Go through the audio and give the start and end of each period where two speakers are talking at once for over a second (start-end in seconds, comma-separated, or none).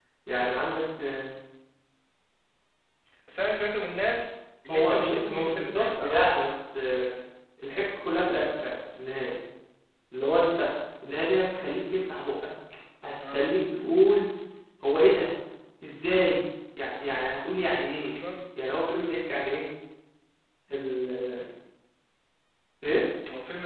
4.7-6.2